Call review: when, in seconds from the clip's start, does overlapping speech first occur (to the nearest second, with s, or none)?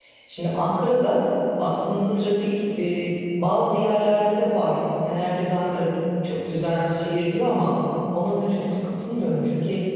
none